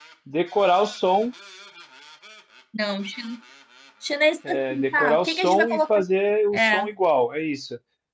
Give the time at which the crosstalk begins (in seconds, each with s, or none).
4.5 s